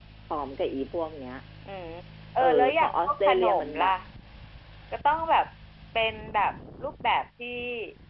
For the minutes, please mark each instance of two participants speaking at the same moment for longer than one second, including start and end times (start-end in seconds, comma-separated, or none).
2.4-3.9